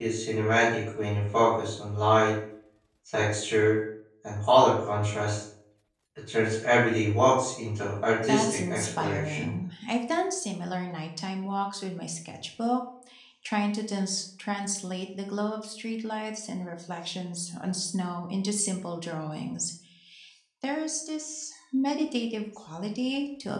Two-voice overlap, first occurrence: 8.2 s

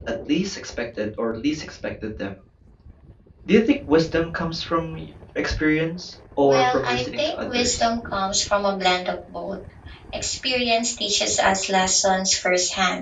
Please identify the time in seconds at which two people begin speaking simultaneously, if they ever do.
6.4 s

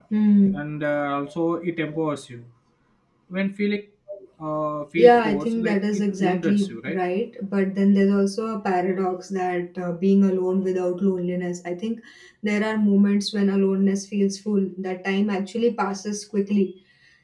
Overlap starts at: 5.0 s

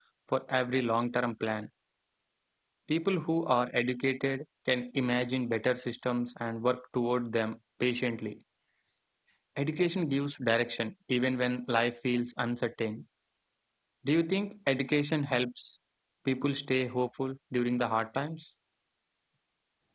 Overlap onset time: none

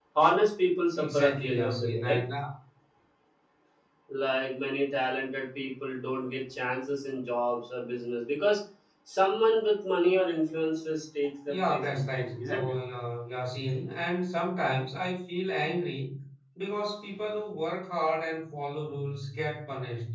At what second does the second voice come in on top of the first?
0.9 s

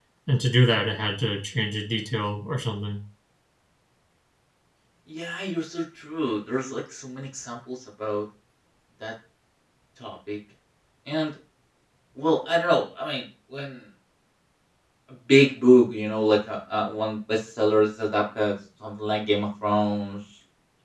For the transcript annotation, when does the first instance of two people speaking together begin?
none

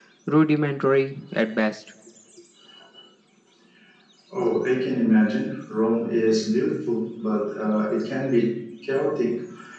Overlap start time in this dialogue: none

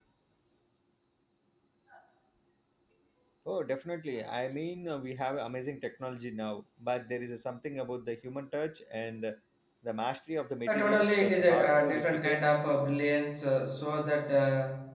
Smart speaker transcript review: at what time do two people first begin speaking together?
10.7 s

